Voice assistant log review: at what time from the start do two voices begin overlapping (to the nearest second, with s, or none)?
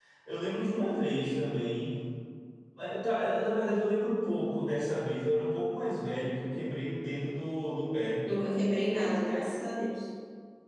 none